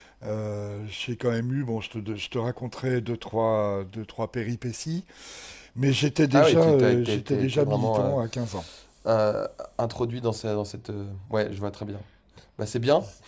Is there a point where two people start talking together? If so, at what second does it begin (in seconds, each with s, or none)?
6.3 s